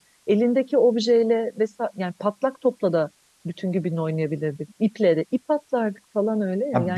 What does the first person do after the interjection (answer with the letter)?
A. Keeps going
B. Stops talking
B